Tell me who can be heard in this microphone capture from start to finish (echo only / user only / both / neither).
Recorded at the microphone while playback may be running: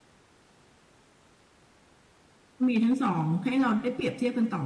user only